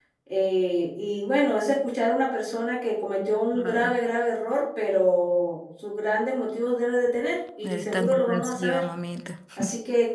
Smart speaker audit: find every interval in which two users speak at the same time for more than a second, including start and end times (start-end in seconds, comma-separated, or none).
7.6-8.8